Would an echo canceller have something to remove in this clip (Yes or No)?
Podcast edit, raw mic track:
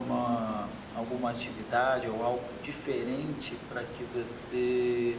Yes